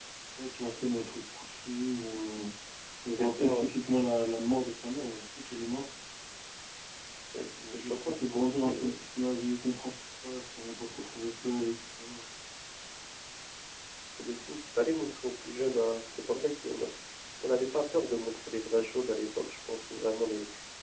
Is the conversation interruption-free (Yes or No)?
No